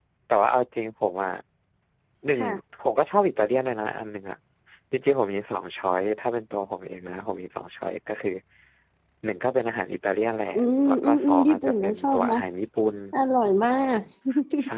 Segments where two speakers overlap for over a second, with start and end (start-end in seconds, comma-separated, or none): 10.9-12.4